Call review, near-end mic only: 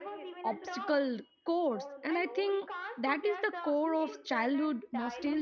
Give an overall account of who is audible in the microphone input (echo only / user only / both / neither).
both